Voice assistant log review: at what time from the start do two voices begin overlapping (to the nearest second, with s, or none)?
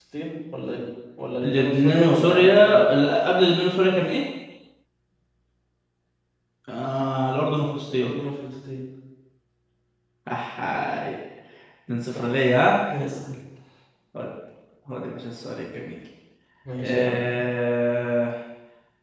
1 s